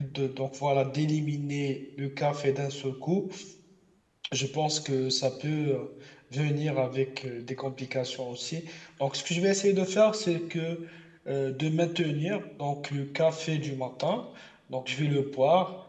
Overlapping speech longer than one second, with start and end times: none

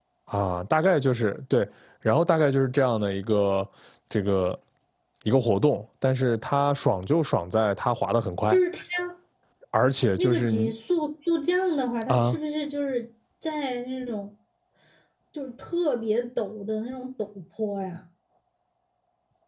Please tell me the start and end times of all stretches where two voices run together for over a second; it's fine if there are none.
none

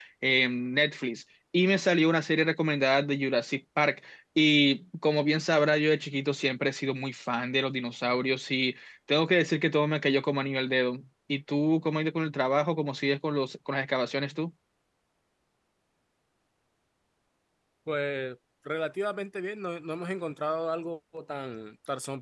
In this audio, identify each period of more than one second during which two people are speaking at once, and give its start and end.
none

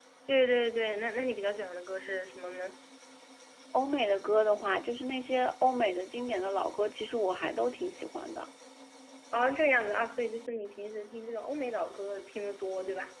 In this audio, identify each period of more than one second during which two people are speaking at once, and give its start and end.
none

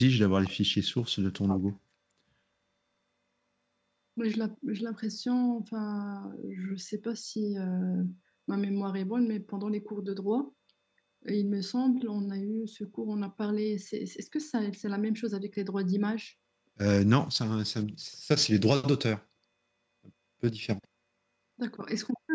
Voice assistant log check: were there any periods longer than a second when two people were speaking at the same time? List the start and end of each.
none

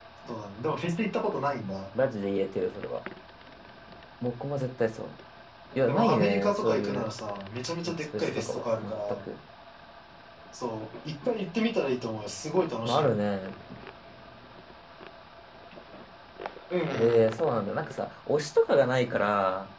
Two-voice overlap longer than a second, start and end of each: 5.8-7.0, 7.8-9.2

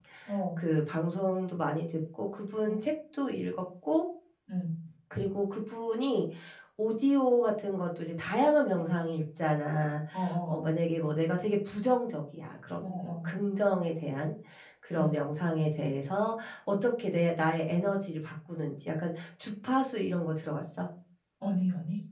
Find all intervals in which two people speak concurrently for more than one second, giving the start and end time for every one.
none

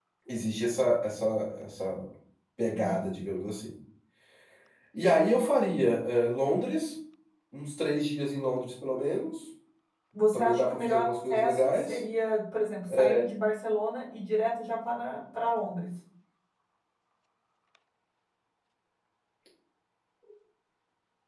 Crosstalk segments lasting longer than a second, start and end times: 10.3-12.0

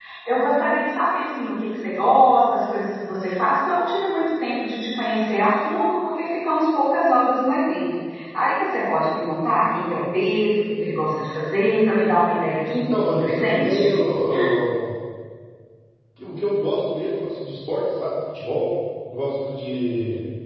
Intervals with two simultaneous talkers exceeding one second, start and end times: 12.7-13.9

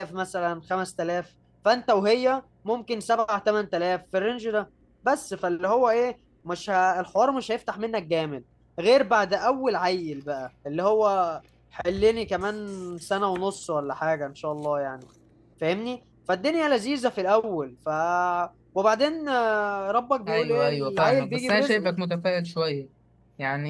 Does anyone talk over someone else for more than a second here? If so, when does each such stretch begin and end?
20.3-21.9

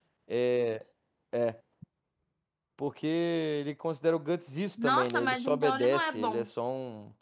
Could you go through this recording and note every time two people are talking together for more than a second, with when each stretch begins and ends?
4.8-6.5

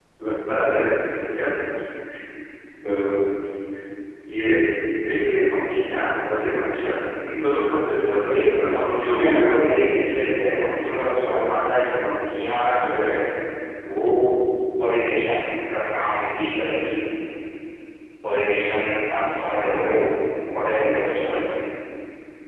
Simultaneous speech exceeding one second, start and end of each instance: 8.2-9.5

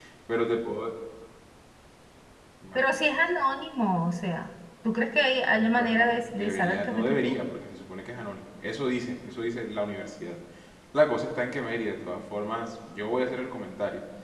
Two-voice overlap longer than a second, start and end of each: 5.5-7.3

